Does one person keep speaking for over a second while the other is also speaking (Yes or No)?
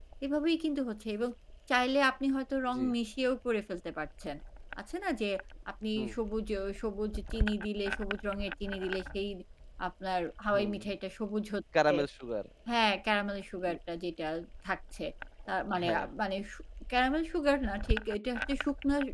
No